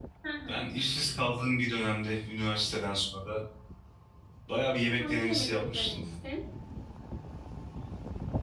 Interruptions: present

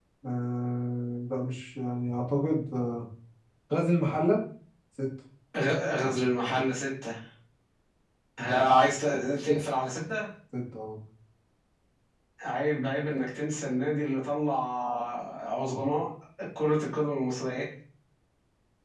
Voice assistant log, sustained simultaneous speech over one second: none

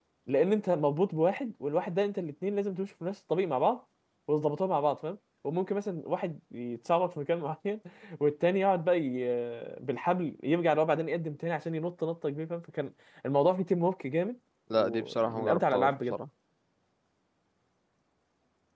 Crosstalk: present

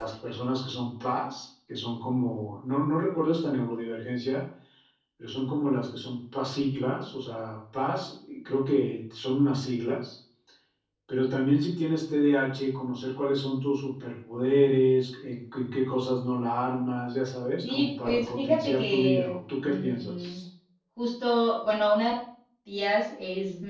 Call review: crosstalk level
present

